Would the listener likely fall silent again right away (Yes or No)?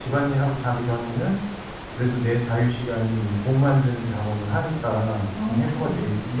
Yes